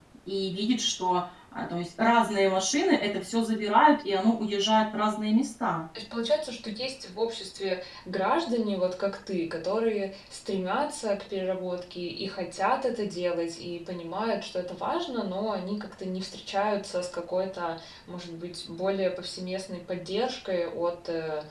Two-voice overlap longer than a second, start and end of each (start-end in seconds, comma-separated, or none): none